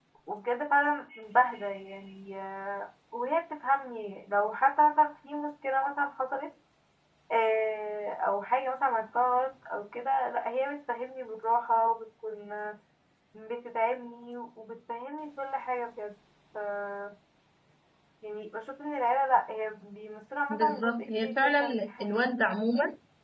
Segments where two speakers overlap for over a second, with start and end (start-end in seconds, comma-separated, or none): 20.5-22.3